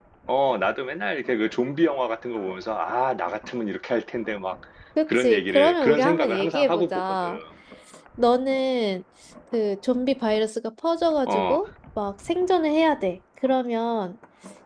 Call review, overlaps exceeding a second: present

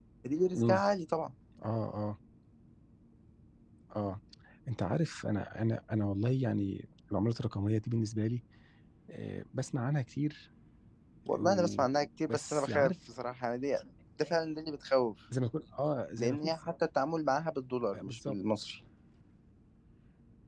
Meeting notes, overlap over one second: present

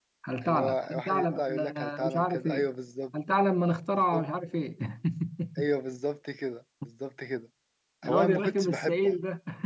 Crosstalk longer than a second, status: present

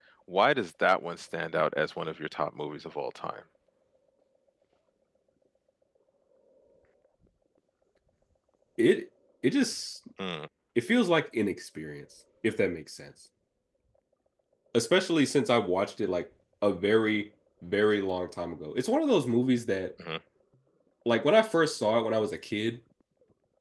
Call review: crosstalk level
none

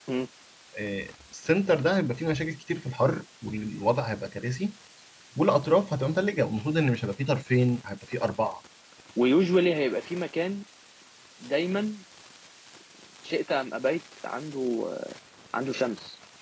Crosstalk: none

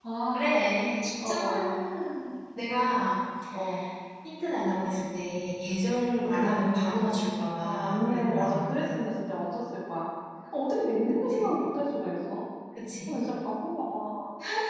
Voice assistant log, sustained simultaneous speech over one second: present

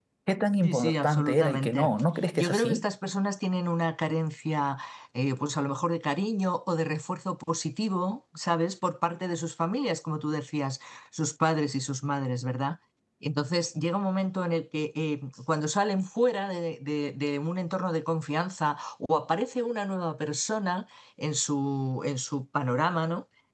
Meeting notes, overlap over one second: present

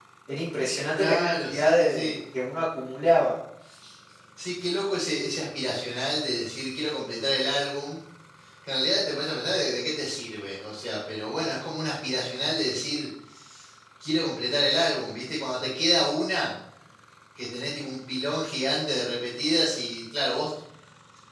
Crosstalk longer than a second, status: present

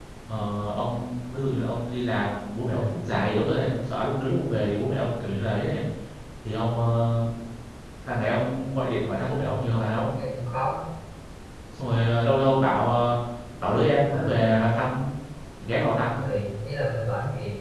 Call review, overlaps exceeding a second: none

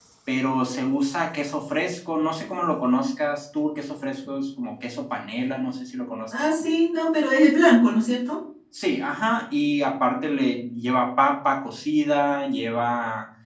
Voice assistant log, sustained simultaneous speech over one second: none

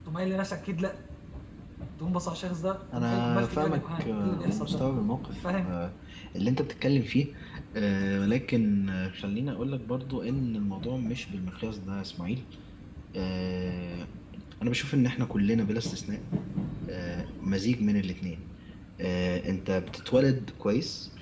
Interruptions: present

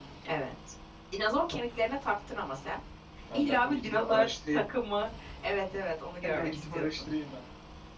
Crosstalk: present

